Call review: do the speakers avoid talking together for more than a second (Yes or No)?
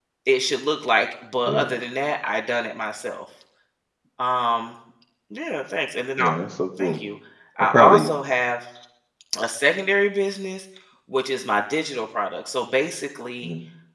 Yes